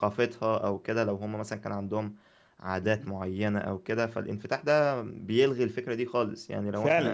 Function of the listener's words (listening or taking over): taking over